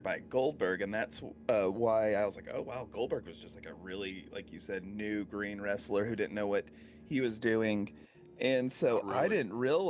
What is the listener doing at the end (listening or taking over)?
listening